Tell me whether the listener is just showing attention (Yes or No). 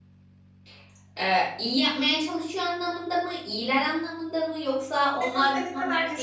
No